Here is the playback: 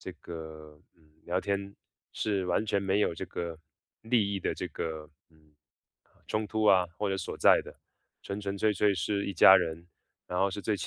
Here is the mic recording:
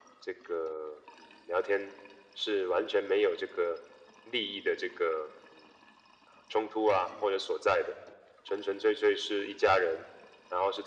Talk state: echo only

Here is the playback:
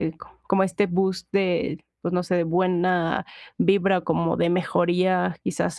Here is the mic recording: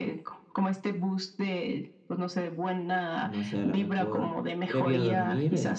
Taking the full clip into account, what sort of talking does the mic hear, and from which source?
both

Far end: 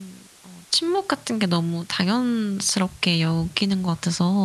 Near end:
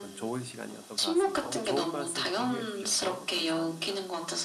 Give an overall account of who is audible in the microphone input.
both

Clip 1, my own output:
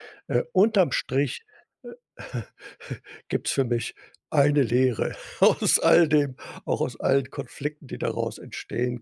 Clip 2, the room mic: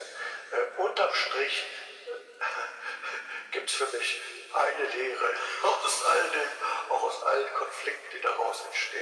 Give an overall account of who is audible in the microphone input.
echo only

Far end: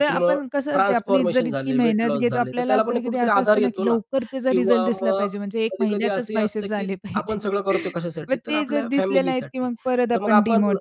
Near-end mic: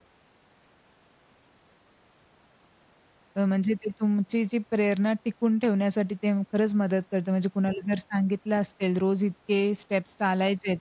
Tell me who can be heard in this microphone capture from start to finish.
user only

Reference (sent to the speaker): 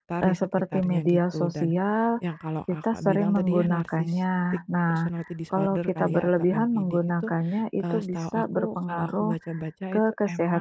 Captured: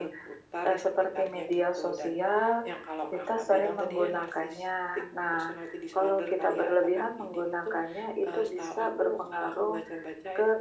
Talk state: echo only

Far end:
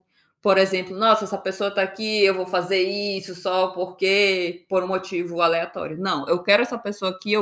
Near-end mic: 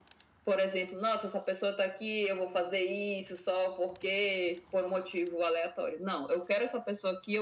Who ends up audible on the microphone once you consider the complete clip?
echo only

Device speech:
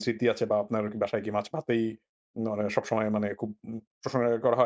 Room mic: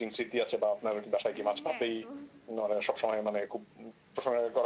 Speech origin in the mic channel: both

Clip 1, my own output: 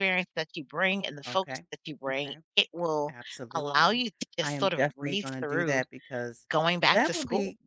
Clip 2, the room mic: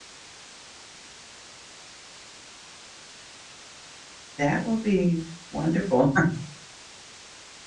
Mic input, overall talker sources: user only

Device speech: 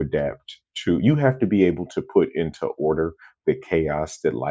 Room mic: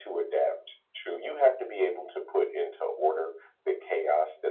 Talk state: echo only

